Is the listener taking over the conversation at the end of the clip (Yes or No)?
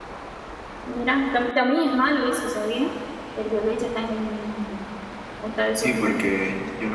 Yes